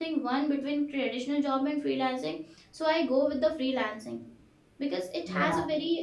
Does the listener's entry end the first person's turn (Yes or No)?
No